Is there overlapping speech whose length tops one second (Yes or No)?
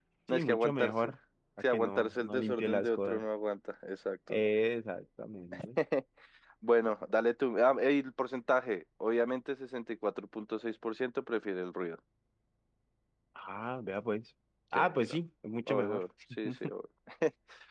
Yes